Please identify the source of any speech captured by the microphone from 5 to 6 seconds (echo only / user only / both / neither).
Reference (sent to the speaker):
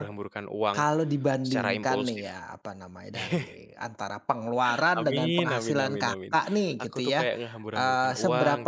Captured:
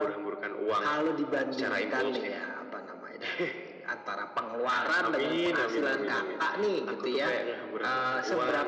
echo only